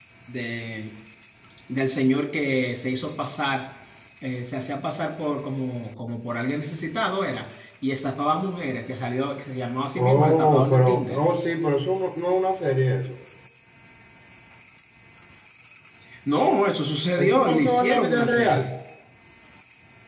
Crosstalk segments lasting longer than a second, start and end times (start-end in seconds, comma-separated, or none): 10.0-11.2, 17.2-18.7